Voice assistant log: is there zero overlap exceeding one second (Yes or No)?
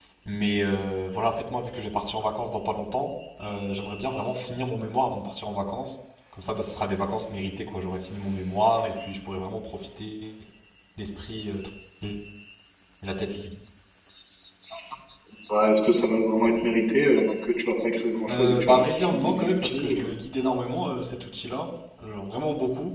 No